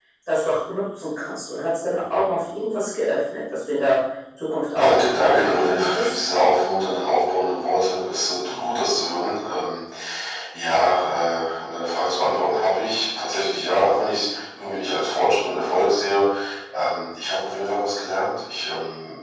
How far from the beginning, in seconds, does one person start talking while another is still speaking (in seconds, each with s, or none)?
4.8 s